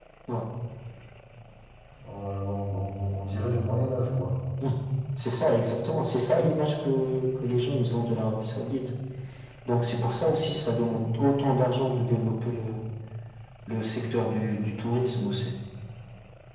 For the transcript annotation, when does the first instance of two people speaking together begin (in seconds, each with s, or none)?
none